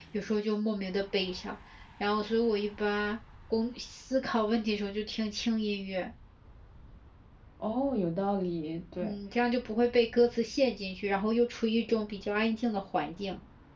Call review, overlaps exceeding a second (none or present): none